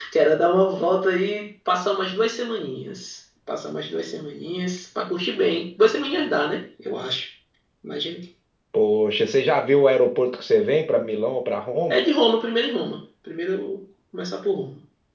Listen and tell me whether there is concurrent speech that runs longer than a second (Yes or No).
No